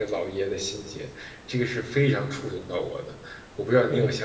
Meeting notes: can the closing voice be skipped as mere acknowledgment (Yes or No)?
No